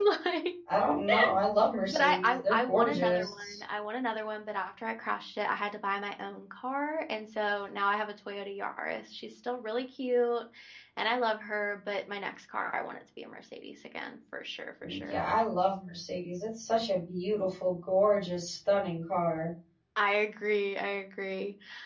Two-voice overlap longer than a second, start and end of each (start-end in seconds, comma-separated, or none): 1.9-3.6